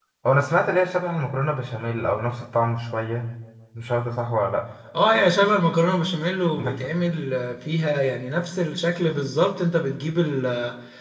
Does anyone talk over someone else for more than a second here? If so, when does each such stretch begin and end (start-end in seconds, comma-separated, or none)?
none